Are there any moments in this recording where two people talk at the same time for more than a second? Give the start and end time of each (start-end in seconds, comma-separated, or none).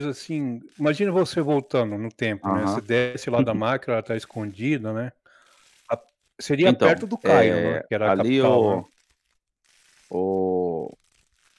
6.6-8.8